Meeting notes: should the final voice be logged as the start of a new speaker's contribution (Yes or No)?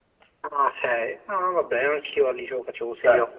Yes